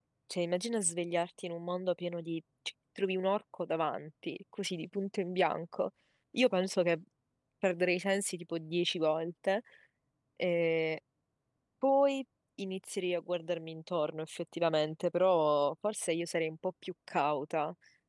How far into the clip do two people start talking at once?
none

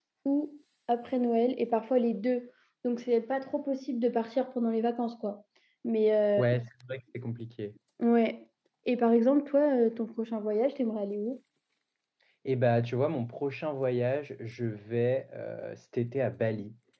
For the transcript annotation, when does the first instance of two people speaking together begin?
none

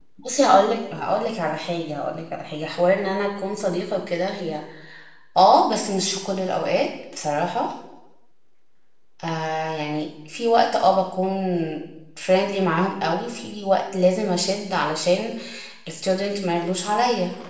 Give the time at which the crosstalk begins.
none

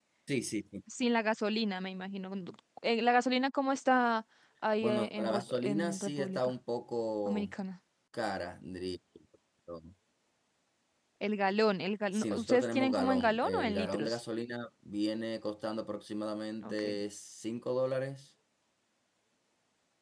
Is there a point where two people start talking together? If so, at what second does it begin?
4.8 s

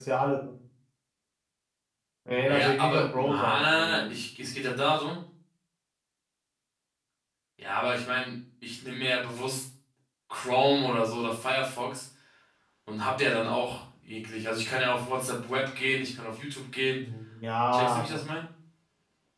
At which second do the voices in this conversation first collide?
2.5 s

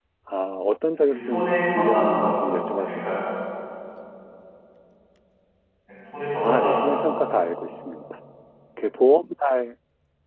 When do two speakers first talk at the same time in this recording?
1.1 s

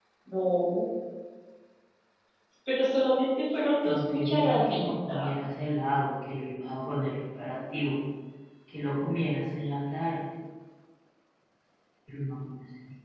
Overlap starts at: 3.8 s

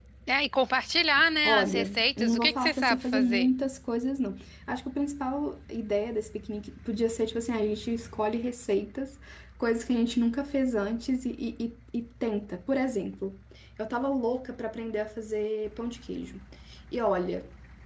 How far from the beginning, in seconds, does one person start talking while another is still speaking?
1.4 s

